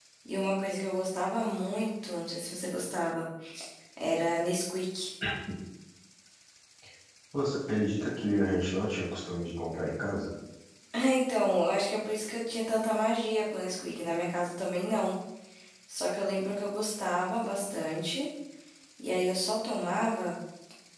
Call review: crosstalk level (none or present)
none